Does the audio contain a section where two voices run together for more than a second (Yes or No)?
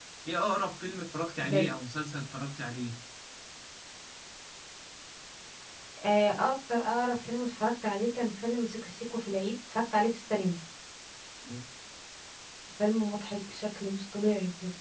No